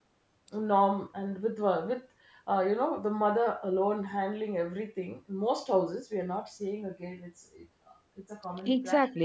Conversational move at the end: taking over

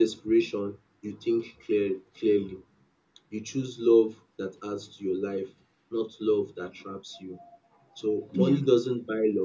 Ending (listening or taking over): listening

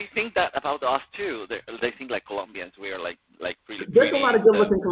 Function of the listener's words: taking over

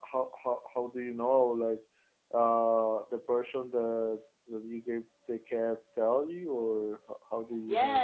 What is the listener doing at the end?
taking over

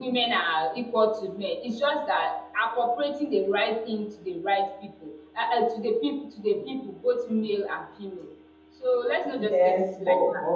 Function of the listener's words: taking over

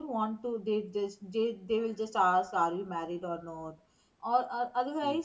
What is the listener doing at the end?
listening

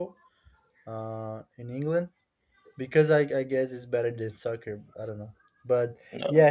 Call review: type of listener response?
listening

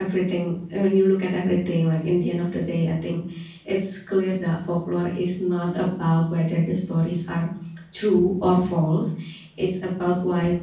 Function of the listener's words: listening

